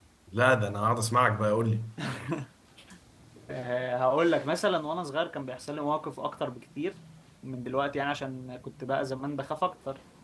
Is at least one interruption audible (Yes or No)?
No